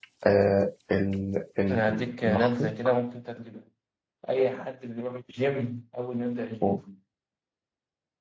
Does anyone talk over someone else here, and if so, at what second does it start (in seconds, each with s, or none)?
1.7 s